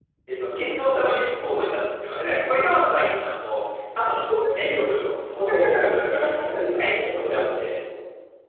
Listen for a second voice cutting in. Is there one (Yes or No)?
Yes